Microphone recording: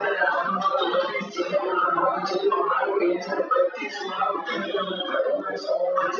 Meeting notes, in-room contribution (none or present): none